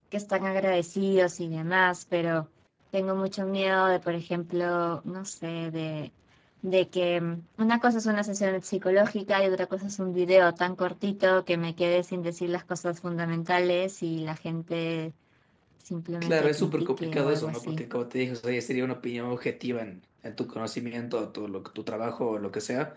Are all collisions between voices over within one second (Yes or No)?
No